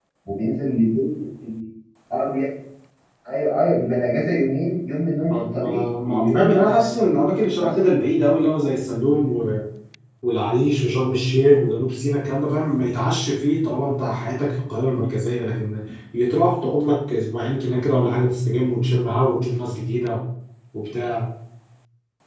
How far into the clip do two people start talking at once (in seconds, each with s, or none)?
5.3 s